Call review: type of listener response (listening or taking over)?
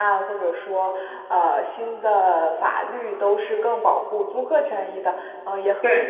listening